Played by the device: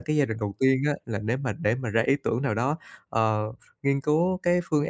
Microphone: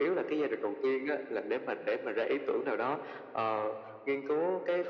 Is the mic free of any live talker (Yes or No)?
Yes